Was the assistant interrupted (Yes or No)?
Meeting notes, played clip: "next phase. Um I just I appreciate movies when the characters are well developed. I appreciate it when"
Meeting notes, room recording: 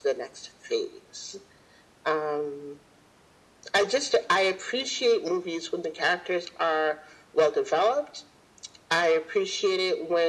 No